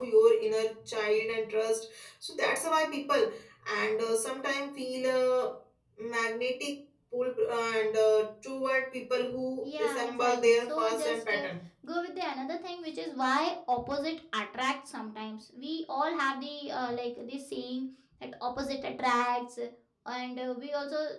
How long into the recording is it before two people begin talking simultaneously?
9.6 s

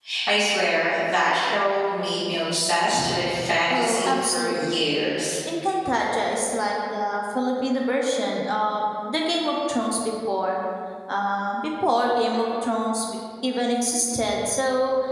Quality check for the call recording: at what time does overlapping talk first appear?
3.7 s

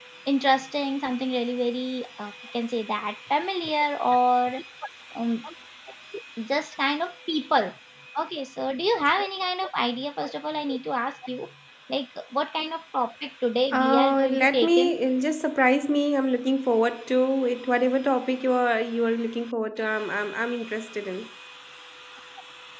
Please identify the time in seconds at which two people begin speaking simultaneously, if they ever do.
13.7 s

